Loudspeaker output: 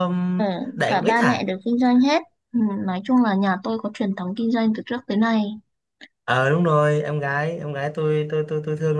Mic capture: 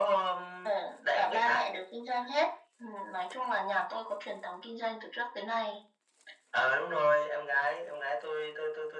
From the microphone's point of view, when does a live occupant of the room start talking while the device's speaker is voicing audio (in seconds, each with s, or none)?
none